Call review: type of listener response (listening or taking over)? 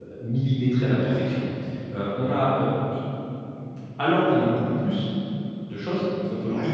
listening